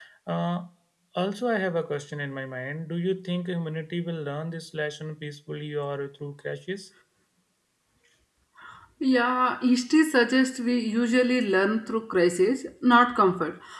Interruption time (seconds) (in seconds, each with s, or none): none